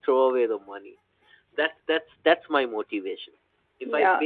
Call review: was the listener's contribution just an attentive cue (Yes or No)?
No